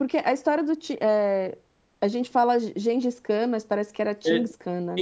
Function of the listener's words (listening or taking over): taking over